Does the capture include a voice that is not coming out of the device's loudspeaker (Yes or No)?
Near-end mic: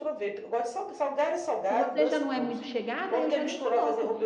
Yes